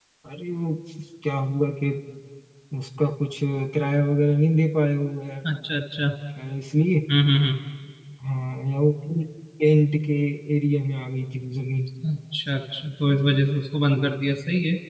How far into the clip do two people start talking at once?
none

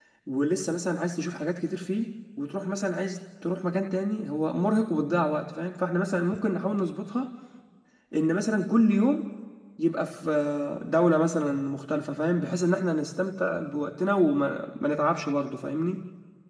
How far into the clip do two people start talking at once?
none

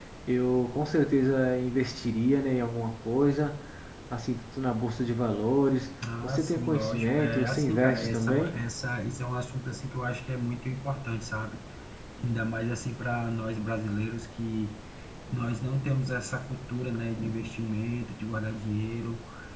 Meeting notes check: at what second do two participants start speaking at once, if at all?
6.0 s

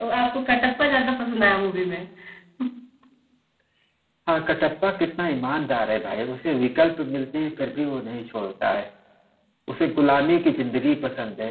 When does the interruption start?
none

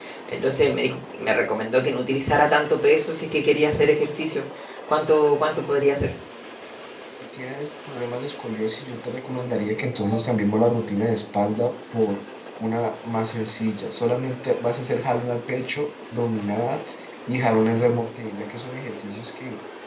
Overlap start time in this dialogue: none

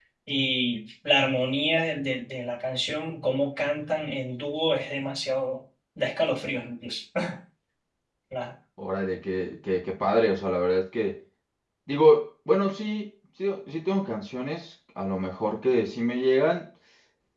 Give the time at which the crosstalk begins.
none

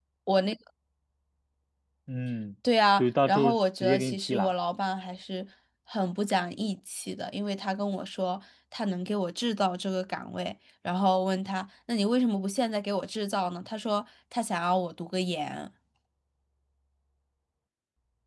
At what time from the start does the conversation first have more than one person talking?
3.0 s

